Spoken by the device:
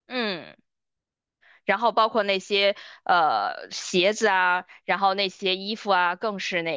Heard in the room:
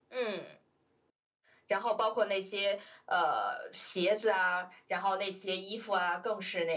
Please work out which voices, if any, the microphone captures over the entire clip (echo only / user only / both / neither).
echo only